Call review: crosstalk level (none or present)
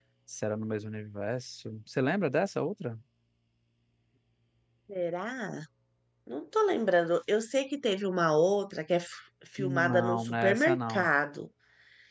present